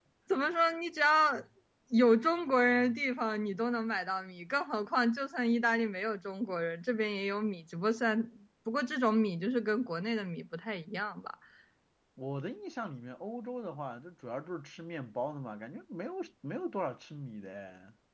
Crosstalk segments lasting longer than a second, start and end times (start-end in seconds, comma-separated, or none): none